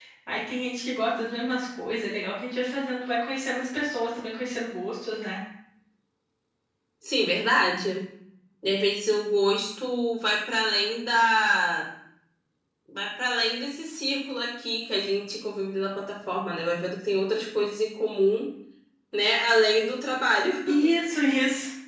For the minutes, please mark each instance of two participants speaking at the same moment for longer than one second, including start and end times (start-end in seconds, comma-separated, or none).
none